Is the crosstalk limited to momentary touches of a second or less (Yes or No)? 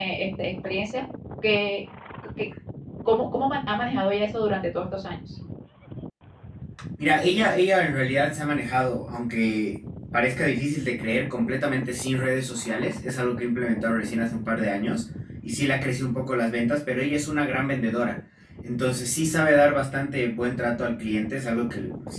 Yes